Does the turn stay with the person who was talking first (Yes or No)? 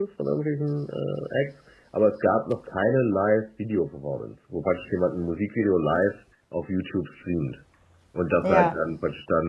Yes